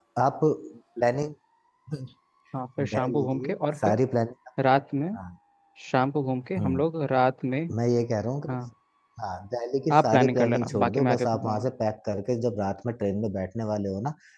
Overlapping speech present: Yes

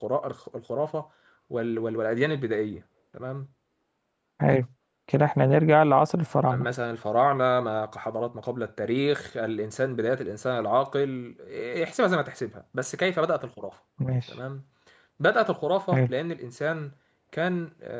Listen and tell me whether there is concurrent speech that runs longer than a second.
No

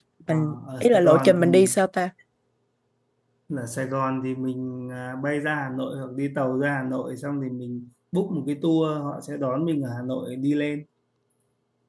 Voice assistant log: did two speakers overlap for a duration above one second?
Yes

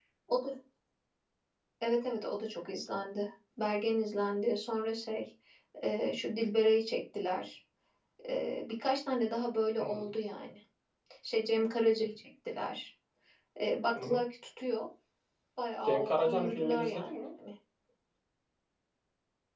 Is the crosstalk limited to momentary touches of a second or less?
No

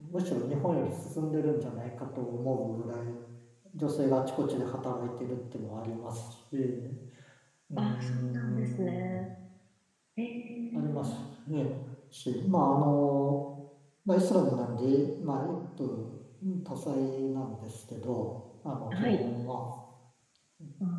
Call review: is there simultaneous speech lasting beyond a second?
Yes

